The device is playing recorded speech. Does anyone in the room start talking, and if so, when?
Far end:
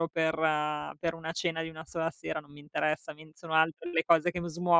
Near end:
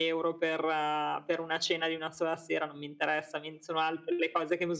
none

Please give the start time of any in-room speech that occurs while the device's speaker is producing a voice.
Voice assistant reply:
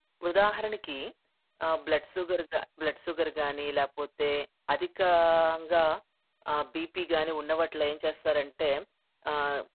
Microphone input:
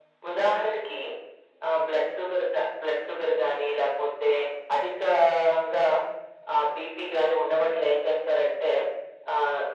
none

